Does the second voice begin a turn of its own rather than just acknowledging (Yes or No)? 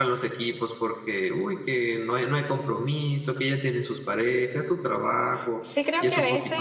Yes